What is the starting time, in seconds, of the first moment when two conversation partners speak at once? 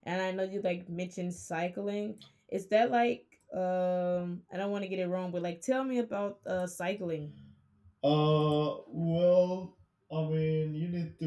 none

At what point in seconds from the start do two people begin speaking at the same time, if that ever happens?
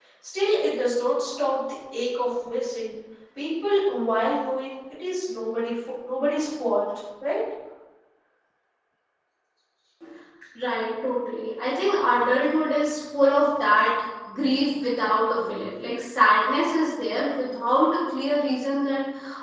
none

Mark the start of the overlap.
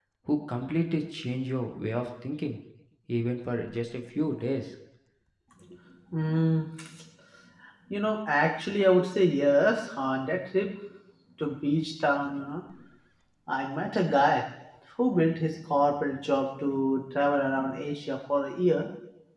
none

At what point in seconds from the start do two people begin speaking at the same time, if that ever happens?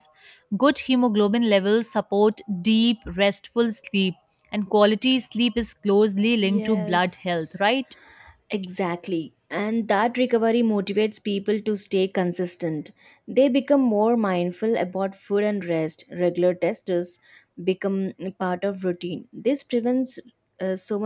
6.4 s

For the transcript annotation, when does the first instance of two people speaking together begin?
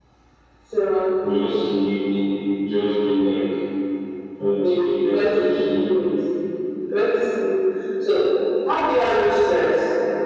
4.6 s

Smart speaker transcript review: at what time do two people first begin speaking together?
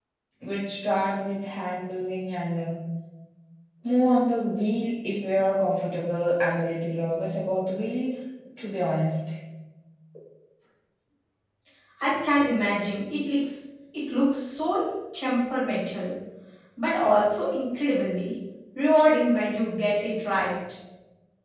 none

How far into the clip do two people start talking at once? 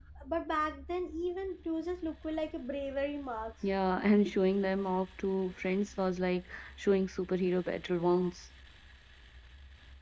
none

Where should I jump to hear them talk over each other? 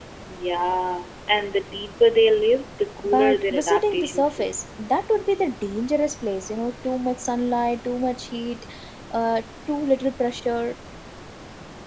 3.0 s

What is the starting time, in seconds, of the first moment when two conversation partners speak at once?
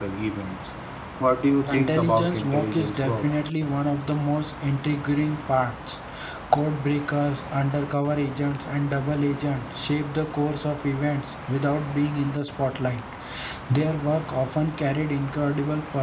1.7 s

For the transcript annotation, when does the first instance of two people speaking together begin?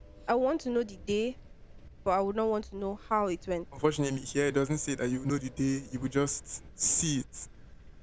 none

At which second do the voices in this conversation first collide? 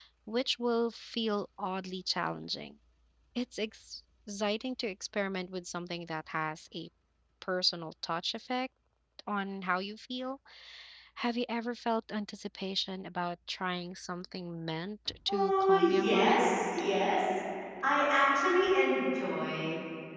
15.3 s

